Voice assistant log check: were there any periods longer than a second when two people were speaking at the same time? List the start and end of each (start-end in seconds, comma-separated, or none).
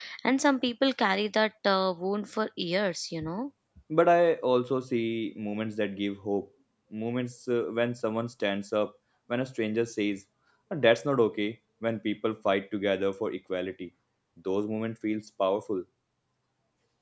none